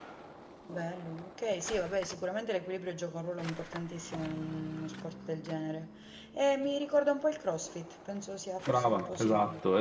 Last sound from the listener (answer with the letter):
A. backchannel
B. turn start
B